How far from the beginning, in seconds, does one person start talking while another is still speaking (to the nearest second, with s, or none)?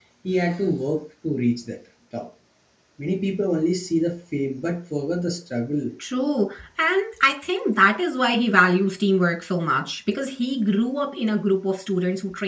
none